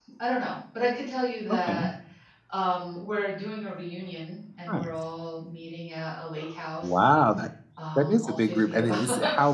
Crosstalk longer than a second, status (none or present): present